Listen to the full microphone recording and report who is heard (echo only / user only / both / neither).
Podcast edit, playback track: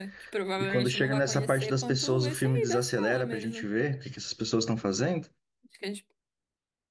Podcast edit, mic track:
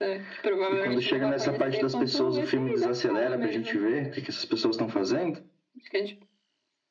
echo only